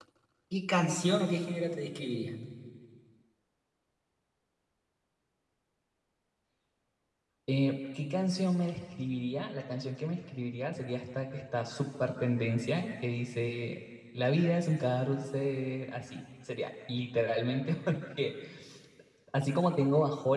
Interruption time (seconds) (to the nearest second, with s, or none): none